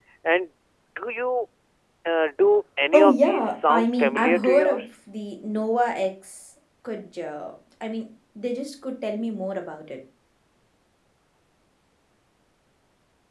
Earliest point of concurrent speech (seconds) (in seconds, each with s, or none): 2.9 s